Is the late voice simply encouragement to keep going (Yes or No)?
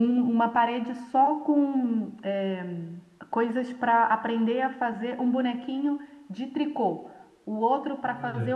Yes